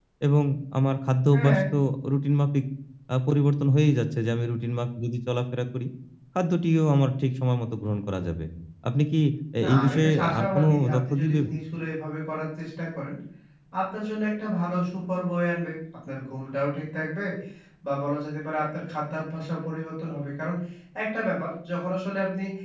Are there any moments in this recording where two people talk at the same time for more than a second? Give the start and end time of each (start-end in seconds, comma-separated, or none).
9.6-11.4